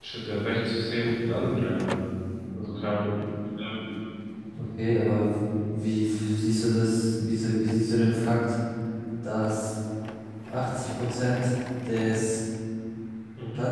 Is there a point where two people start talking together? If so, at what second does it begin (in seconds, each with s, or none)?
none